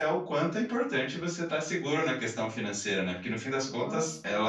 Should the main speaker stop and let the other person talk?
No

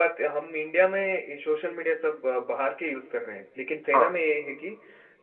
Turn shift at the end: No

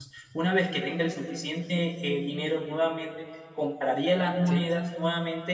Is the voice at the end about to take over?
No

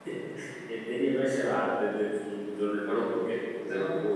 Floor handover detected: Yes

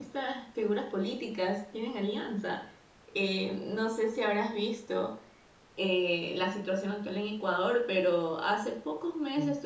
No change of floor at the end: Yes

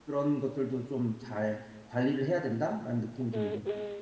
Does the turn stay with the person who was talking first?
No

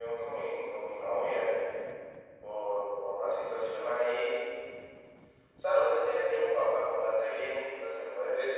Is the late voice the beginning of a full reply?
Yes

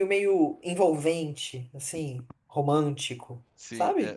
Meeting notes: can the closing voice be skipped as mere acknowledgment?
No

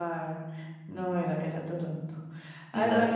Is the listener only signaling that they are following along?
Yes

